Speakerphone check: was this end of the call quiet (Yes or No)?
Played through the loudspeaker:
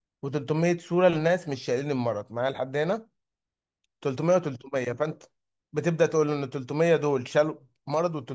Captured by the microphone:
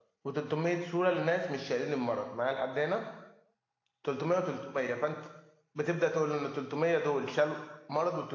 Yes